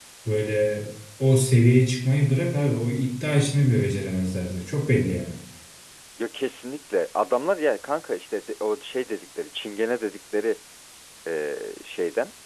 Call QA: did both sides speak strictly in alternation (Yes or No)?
Yes